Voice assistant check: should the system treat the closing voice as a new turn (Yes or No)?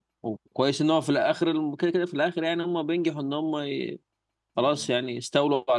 No